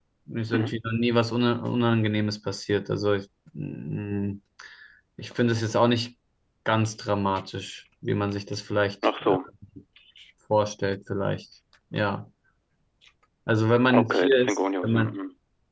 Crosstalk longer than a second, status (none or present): present